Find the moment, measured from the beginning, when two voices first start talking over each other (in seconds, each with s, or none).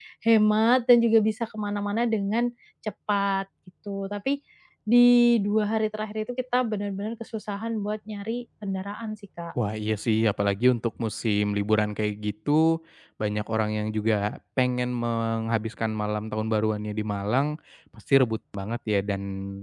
none